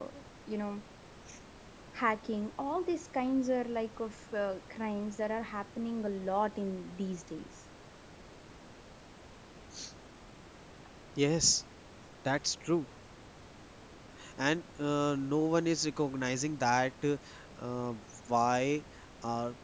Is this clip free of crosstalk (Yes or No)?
Yes